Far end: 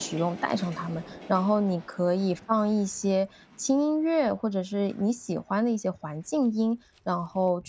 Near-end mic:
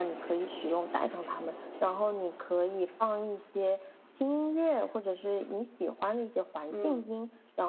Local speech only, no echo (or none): 嗯。